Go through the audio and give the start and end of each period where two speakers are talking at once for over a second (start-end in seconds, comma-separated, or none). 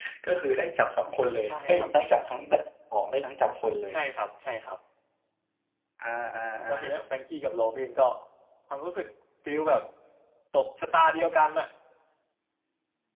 none